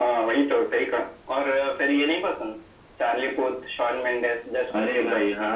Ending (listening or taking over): taking over